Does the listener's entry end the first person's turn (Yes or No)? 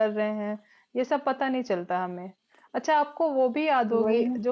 No